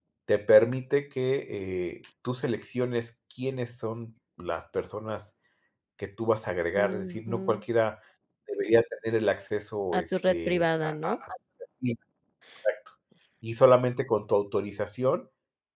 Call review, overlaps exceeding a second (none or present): present